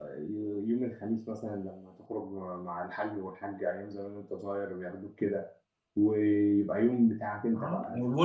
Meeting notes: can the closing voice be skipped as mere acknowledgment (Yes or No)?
No